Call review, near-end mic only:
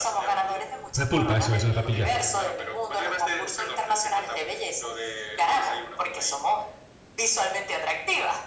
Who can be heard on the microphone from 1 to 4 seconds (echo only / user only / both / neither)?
both